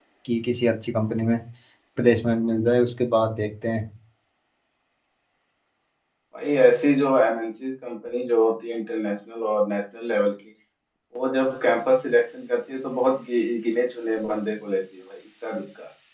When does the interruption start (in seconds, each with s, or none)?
none